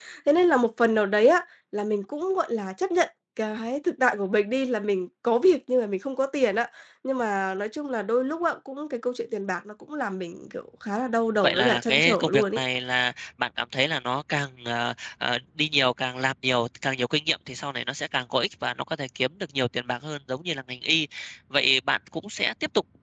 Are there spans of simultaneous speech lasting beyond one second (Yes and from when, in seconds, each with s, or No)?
Yes, from 11.4 s